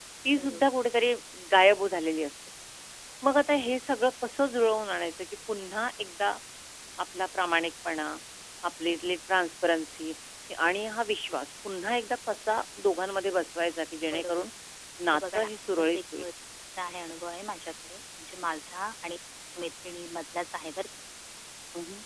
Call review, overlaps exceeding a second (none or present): present